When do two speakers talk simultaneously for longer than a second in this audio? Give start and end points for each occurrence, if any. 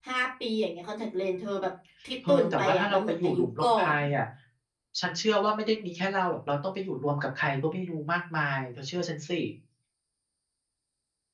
2.3-3.9

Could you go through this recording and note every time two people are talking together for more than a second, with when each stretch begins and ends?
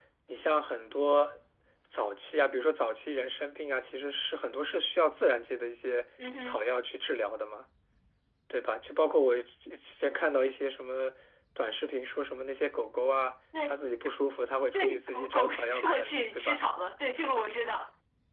14.7-16.6

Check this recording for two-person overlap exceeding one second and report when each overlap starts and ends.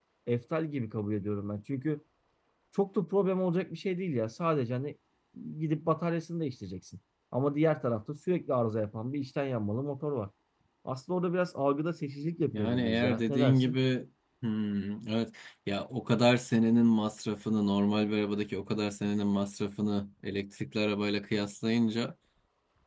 12.5-13.8

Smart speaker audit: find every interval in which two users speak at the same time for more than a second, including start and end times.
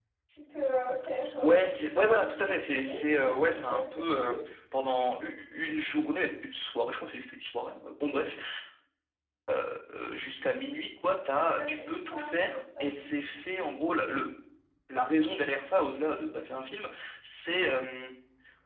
1.4-4.3, 11.6-12.9

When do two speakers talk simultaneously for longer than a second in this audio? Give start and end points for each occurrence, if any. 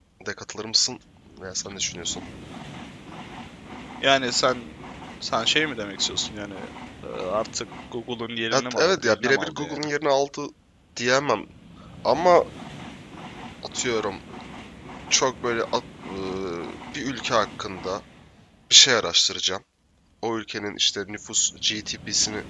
8.5-9.8

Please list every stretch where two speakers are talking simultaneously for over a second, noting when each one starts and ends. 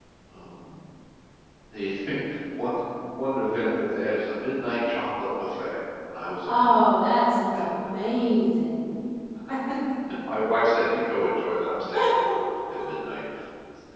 none

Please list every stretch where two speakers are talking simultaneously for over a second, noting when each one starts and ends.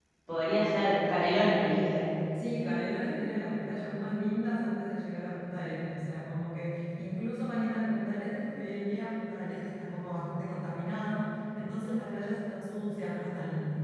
none

